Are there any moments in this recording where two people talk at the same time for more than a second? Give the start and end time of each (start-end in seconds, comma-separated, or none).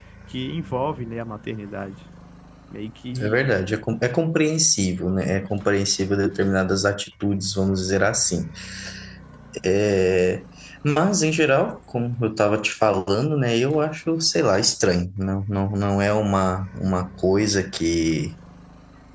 none